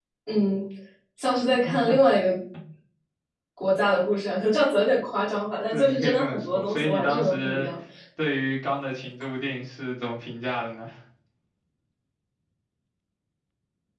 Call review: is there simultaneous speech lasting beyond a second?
Yes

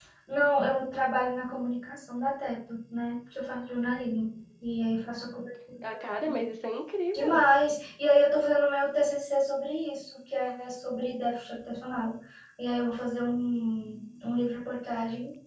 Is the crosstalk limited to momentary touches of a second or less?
Yes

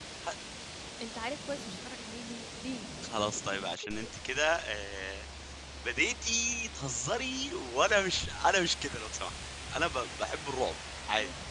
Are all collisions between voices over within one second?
Yes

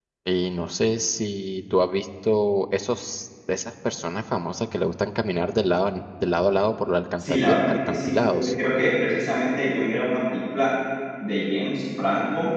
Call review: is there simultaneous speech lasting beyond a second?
Yes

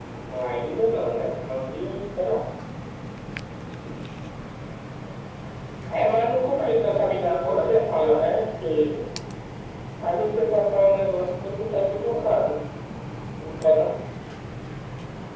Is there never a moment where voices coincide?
No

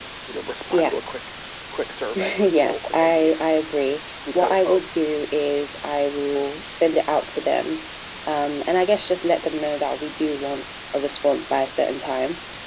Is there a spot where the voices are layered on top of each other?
Yes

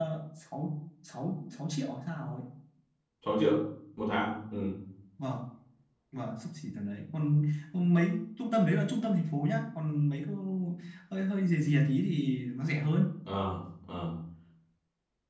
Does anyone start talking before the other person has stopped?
No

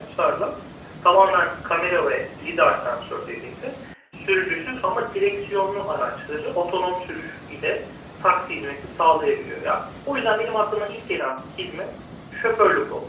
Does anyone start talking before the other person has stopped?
No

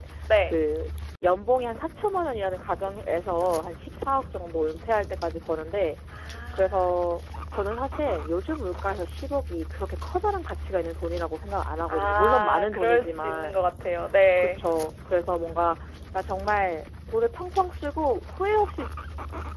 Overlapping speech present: Yes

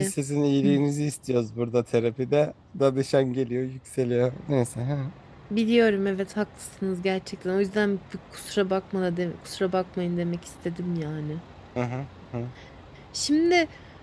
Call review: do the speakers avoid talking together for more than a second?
Yes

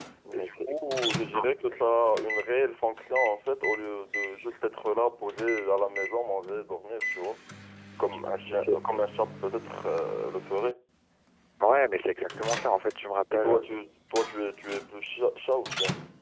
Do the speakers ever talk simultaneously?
Yes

